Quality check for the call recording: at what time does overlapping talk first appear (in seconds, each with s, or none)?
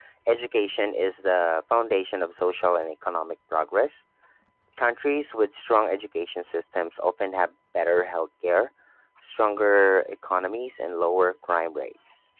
none